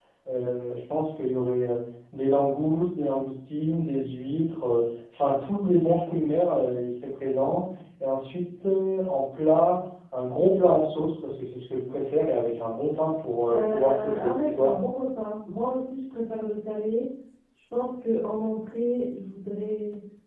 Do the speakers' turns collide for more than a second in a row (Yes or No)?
Yes